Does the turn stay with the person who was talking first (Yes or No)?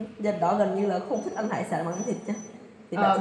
No